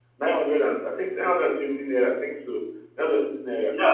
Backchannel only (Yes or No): No